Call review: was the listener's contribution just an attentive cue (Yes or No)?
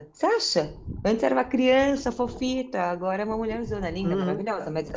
No